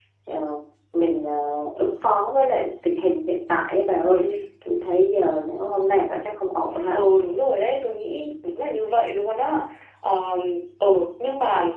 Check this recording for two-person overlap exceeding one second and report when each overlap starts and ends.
none

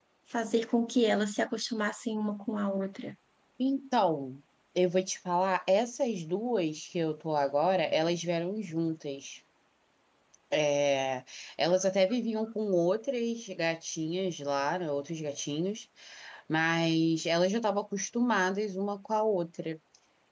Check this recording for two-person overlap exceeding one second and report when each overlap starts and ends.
none

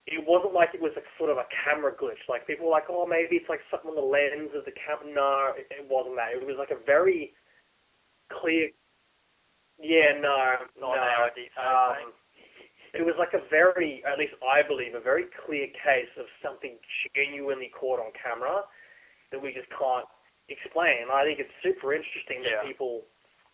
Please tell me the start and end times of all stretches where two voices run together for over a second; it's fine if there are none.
10.8-12.0

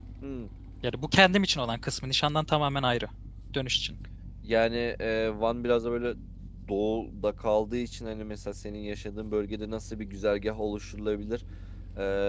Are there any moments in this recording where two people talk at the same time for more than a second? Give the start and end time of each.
none

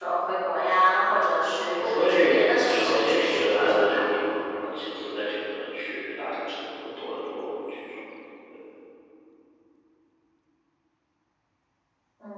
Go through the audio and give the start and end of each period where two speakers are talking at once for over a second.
1.8-4.0

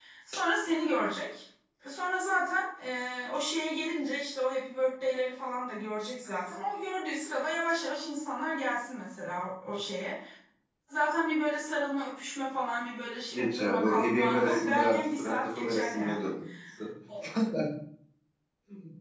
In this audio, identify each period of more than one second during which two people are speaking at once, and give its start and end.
13.3-16.3

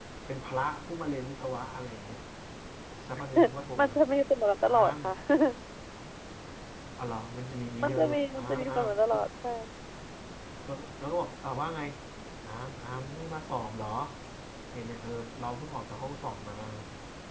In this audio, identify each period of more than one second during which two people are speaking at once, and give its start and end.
7.8-9.2

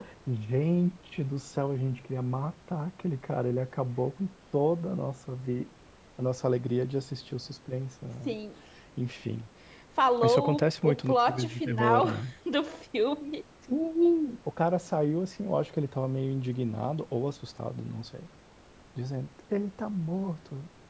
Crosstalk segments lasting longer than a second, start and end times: 10.2-12.1

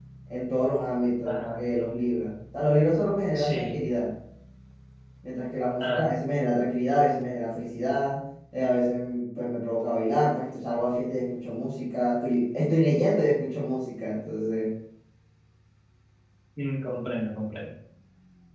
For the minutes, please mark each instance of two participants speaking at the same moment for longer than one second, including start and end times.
none

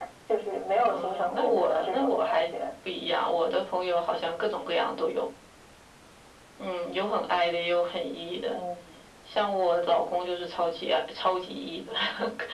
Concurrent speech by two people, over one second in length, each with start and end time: 0.8-2.5

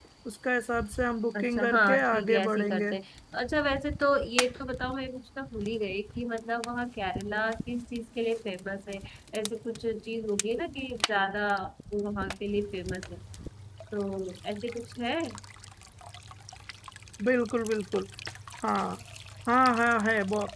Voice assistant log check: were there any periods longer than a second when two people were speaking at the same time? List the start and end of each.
1.4-2.9

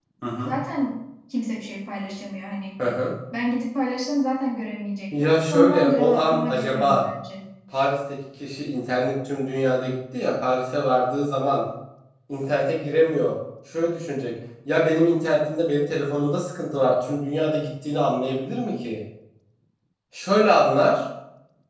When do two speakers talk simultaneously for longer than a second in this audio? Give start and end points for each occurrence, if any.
5.1-7.0

